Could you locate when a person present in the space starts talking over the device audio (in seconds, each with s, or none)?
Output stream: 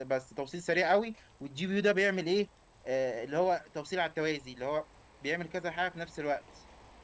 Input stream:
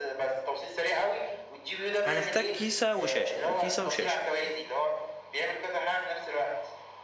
2.0 s